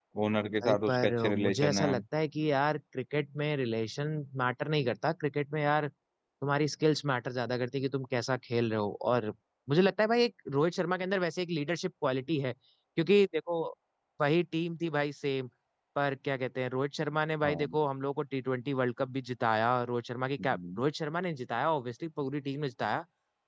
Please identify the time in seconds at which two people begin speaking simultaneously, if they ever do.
0.6 s

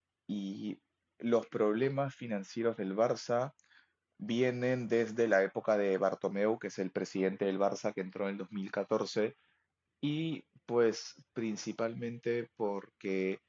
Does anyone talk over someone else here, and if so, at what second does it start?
none

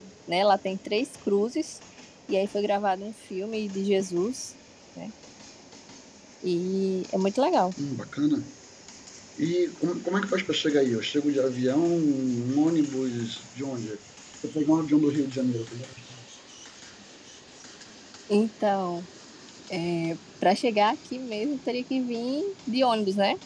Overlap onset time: none

